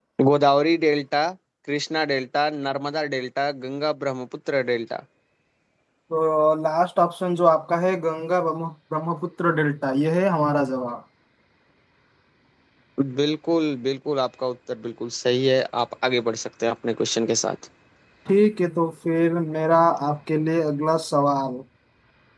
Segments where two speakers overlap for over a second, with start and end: none

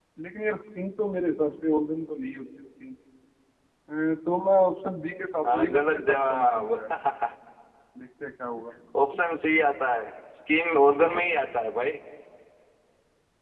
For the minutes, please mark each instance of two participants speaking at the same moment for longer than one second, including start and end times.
5.4-6.7

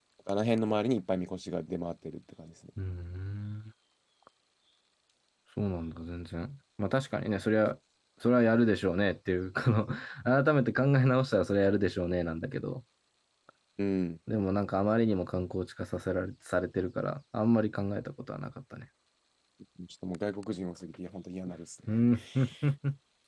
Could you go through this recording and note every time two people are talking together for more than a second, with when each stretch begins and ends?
none

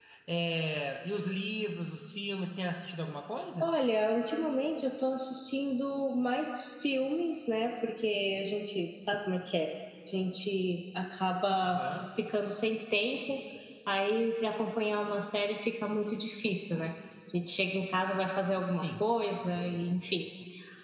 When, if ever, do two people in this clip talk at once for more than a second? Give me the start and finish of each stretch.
none

